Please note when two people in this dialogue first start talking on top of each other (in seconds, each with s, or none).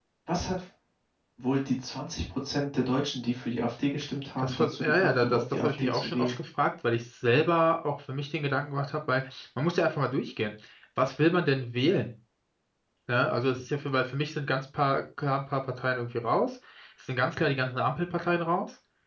4.4 s